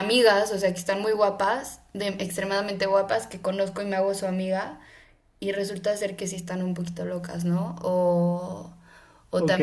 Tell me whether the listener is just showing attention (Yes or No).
No